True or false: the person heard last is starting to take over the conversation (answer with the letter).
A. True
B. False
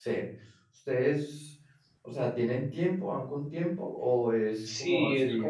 A